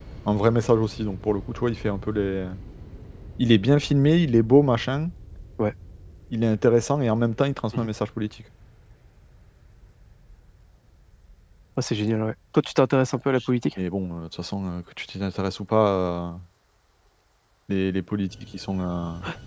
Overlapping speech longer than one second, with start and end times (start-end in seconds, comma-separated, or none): none